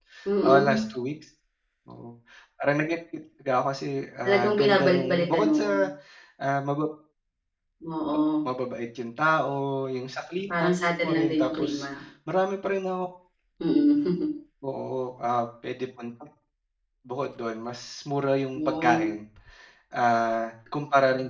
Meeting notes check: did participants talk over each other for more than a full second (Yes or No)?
Yes